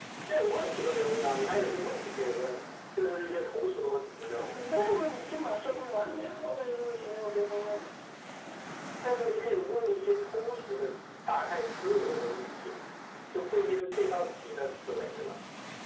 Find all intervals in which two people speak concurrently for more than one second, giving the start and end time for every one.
none

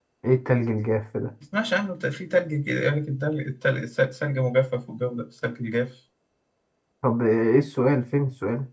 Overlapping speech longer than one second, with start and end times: none

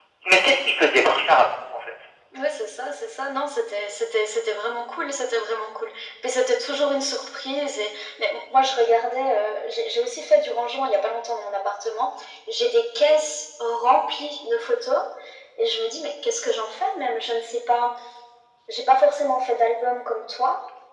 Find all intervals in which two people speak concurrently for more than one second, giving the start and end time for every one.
none

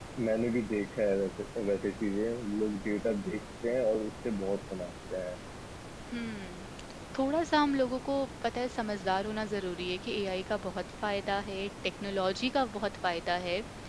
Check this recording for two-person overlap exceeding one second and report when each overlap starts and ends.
none

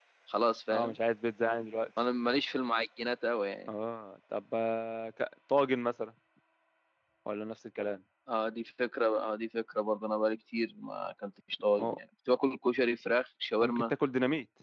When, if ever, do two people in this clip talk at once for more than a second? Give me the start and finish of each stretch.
none

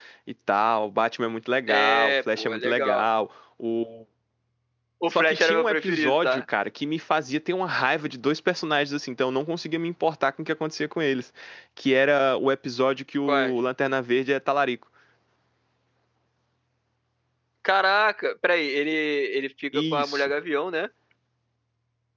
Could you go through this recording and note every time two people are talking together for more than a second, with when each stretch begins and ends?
1.7-3.0, 5.1-6.4

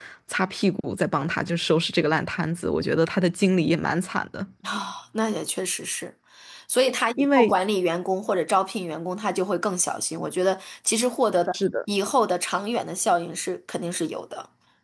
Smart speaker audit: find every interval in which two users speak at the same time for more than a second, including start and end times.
none

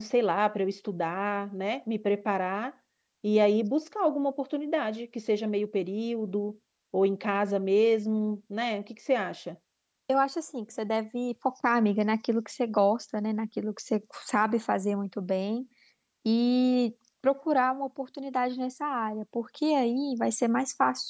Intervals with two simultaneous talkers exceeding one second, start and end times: none

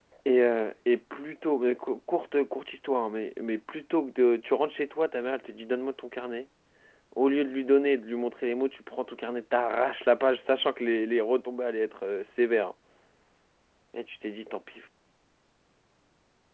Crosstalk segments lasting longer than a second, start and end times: none

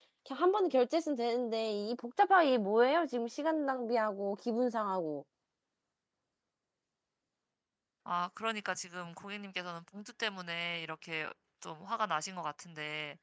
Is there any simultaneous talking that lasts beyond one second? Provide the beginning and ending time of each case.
none

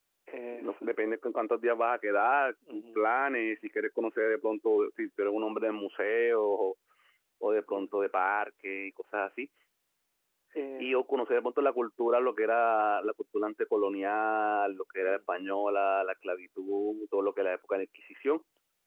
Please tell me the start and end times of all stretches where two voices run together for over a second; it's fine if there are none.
none

